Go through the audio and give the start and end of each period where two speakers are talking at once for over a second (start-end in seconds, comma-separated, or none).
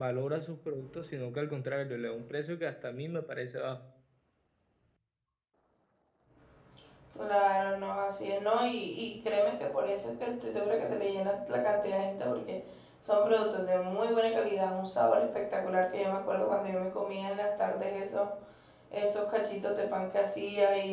none